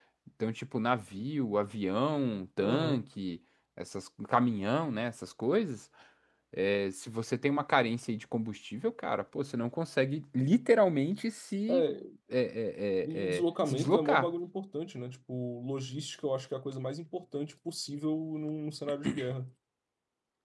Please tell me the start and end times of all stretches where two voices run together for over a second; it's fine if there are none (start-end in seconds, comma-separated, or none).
13.0-14.3